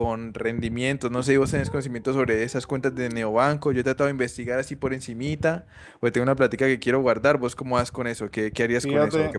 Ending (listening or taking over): taking over